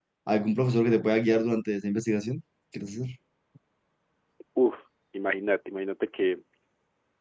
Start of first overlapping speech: none

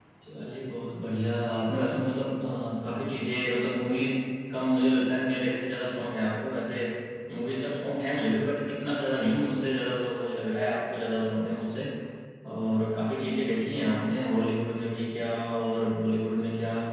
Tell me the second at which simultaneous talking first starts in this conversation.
none

